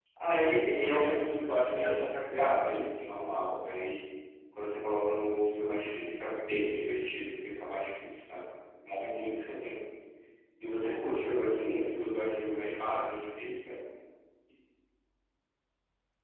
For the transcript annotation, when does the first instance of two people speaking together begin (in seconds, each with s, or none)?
0.7 s